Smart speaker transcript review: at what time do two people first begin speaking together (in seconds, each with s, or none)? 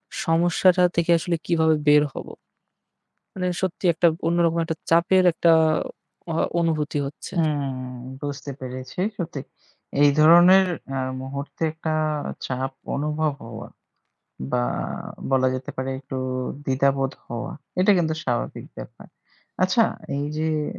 none